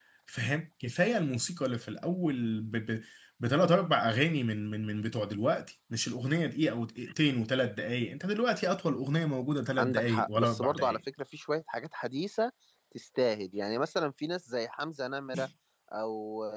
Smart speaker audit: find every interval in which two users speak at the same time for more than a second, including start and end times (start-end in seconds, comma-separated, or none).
9.8-11.0